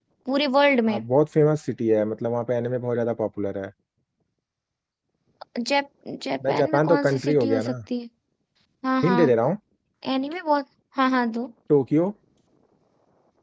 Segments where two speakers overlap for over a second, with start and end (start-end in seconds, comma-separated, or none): 6.5-7.7